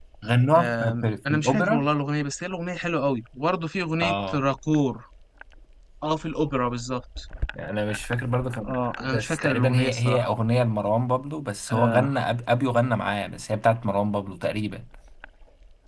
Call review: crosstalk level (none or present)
present